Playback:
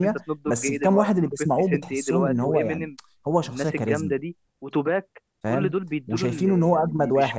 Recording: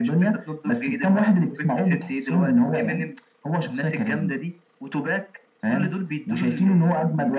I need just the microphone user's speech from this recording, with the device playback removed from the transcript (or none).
none